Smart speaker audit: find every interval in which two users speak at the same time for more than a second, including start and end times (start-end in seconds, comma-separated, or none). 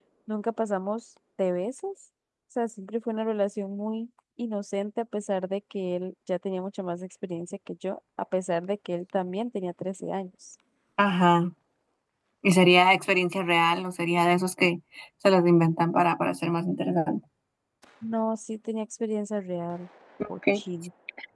none